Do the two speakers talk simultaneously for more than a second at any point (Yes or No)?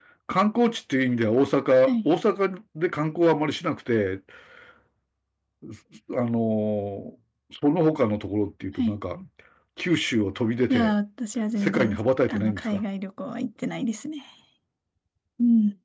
Yes